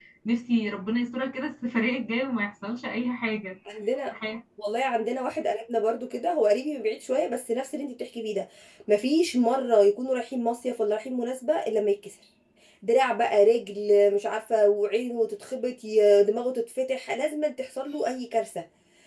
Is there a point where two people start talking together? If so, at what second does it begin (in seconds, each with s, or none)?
none